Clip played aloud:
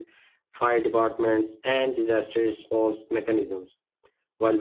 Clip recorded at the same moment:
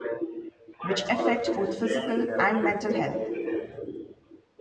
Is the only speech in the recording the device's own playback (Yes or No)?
No